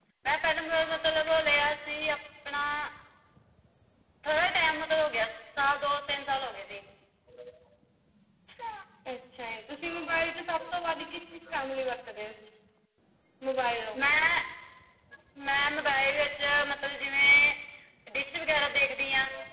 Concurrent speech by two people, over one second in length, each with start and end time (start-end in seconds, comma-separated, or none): none